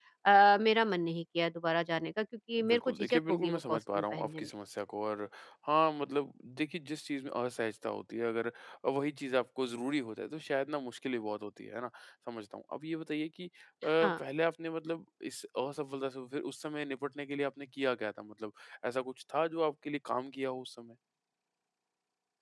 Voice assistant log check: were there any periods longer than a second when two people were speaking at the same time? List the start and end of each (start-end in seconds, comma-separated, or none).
2.7-4.5